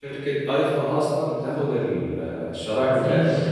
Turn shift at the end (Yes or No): Yes